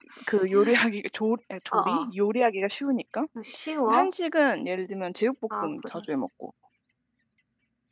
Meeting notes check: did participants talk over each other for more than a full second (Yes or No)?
No